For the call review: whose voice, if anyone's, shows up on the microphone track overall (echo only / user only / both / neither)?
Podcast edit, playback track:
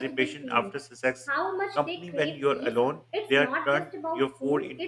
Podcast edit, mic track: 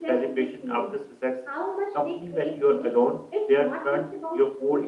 echo only